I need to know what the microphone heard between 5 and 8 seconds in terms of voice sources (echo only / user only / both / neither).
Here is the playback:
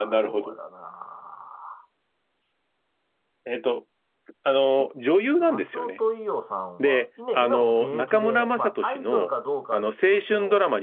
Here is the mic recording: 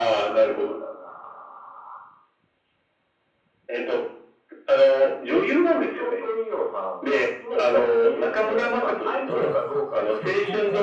echo only